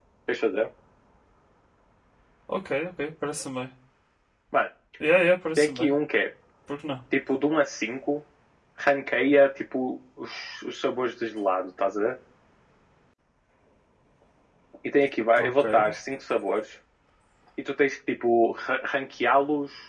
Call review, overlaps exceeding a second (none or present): none